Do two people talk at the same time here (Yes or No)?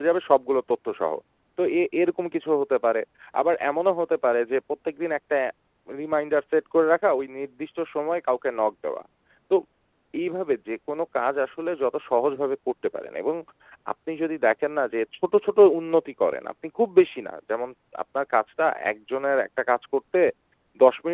No